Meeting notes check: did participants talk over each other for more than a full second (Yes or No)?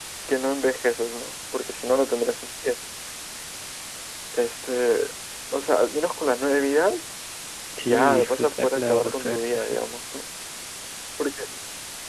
Yes